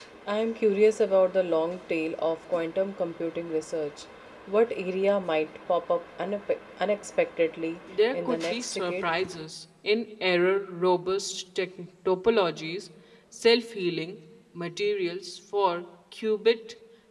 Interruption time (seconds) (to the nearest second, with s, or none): 8 s